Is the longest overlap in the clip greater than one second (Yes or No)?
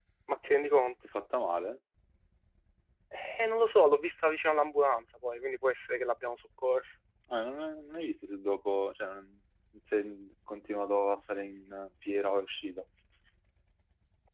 No